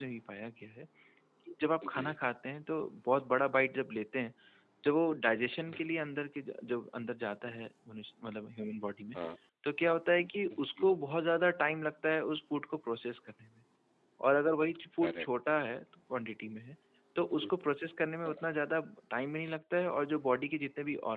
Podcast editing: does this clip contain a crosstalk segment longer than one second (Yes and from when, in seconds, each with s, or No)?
No